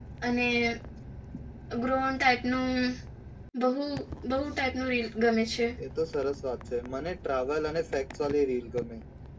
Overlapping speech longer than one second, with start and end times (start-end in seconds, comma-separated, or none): none